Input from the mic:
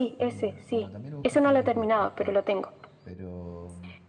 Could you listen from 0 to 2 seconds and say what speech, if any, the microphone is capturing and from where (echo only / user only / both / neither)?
both